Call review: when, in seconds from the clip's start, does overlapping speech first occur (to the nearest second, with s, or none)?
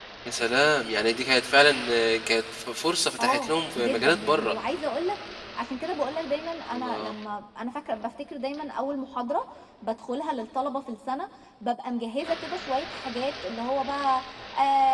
3 s